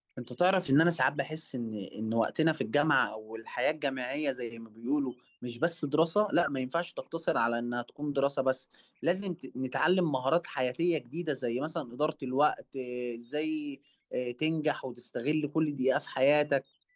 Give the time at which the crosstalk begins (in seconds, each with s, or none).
none